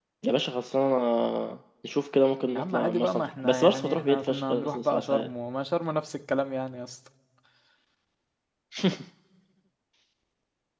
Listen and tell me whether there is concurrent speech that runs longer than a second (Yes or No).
Yes